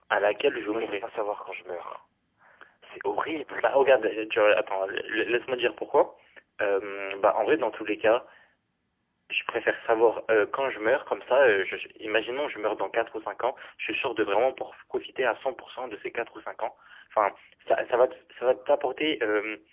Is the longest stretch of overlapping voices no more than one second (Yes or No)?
Yes